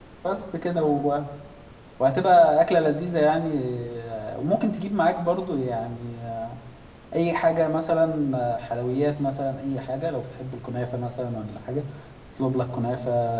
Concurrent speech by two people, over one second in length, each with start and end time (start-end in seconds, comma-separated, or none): none